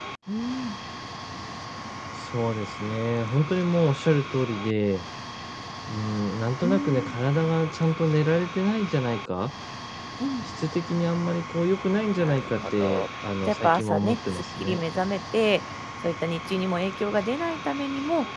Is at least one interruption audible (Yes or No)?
Yes